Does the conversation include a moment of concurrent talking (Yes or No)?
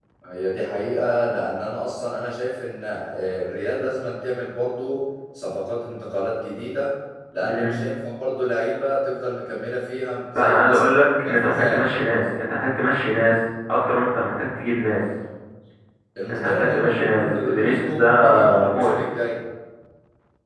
Yes